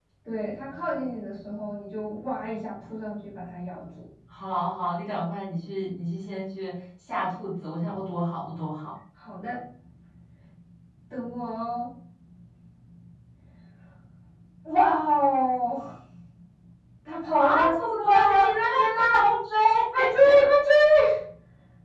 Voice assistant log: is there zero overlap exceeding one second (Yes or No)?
No